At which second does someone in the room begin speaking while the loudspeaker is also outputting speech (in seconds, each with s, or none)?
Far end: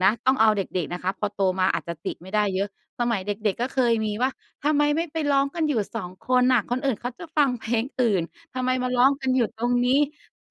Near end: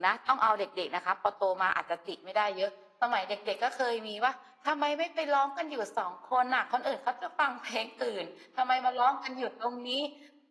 none